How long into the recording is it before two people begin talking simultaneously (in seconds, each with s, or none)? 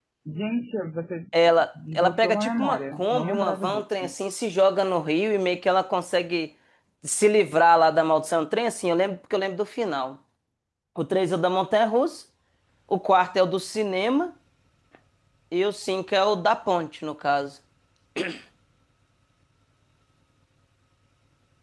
1.9 s